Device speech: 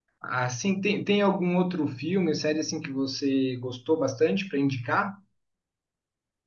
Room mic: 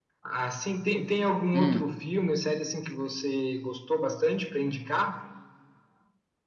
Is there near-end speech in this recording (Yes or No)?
Yes